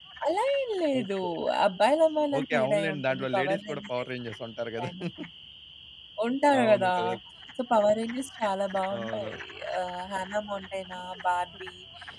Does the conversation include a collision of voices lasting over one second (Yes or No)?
Yes